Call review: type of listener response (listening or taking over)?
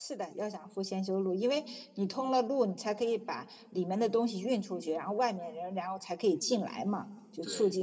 listening